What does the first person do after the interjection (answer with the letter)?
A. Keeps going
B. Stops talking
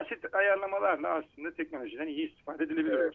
B